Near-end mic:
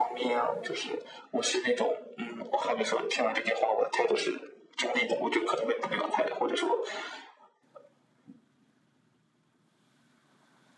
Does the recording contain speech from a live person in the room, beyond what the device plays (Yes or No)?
No